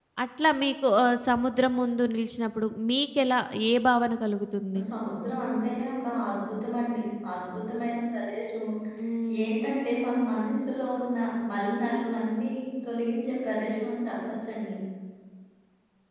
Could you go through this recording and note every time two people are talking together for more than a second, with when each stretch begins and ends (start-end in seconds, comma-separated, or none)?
none